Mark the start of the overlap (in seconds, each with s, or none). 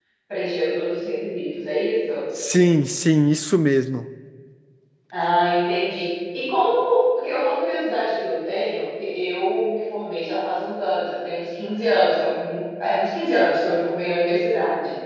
none